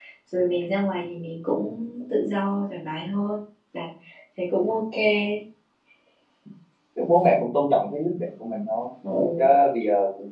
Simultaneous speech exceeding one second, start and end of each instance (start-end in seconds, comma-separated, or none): none